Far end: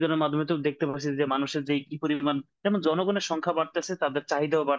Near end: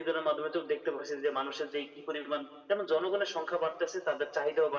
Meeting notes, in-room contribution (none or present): none